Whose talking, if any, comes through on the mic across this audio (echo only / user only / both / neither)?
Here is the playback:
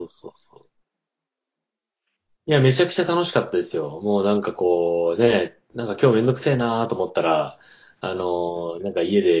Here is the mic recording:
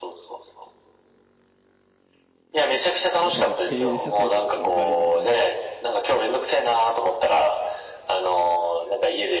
both